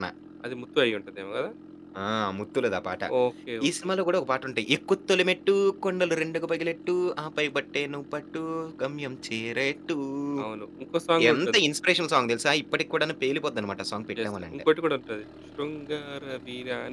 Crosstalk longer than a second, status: none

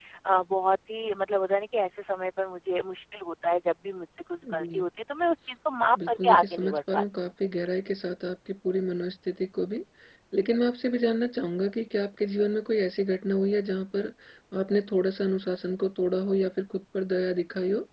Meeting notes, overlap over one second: present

